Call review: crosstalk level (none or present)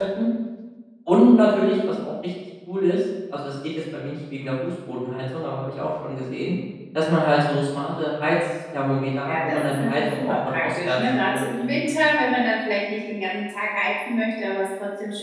present